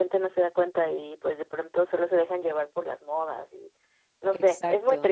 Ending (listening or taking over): taking over